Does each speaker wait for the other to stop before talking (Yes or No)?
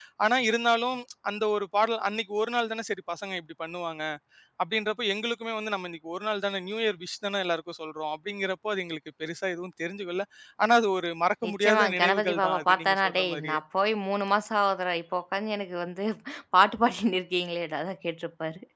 No